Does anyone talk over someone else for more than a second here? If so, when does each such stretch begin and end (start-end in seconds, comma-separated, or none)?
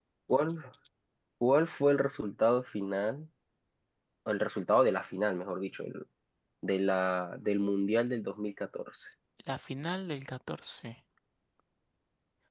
none